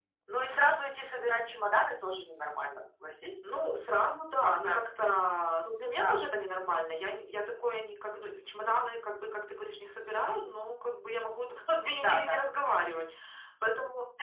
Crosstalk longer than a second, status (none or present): none